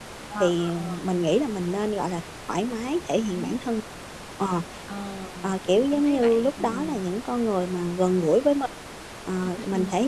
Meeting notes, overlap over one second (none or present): present